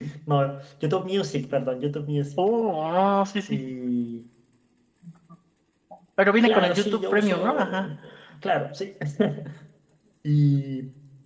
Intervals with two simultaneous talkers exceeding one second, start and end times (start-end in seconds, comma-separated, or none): 6.4-7.9